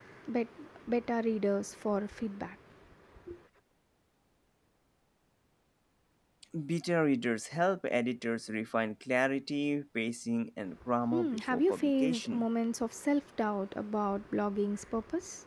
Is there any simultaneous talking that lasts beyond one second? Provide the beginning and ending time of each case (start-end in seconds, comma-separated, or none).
11.1-12.4